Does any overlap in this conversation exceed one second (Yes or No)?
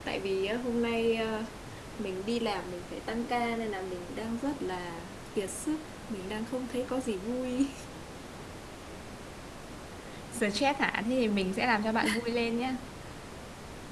No